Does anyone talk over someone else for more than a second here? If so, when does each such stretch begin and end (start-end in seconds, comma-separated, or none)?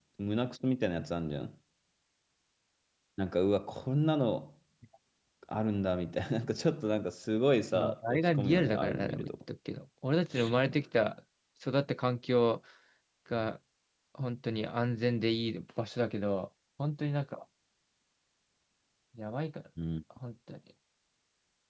7.7-9.3